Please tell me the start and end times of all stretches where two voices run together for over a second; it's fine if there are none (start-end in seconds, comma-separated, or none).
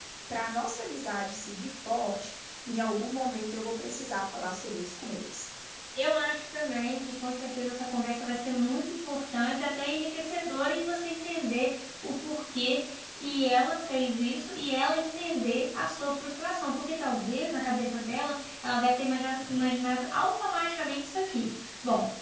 none